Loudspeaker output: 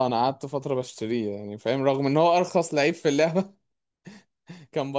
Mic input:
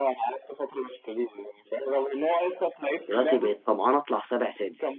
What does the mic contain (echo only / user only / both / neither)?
both